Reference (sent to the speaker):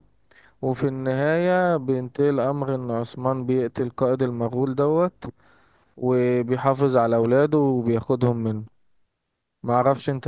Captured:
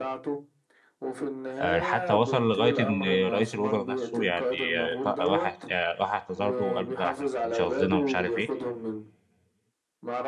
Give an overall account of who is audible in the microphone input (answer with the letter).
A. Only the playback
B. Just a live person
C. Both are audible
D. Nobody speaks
C